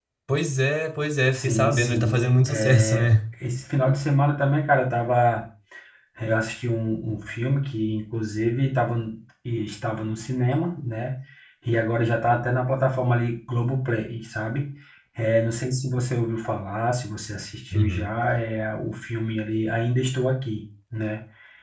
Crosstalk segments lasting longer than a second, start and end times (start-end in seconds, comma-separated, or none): 1.3-3.1